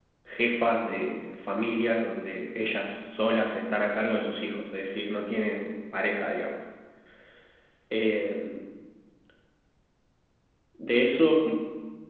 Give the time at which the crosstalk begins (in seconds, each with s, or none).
none